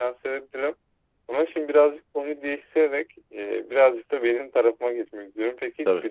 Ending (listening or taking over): listening